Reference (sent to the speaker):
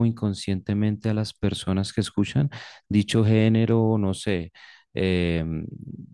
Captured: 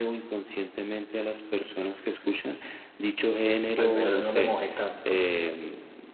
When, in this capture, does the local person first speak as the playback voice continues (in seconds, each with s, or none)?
3.8 s